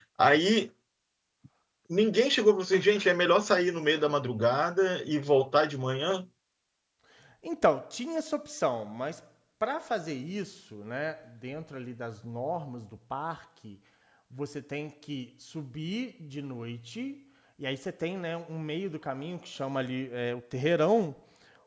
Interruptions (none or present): none